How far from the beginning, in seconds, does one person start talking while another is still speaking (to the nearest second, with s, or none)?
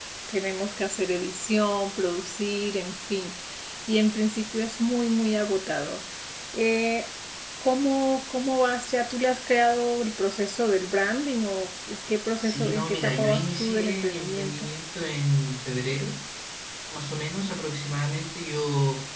12 s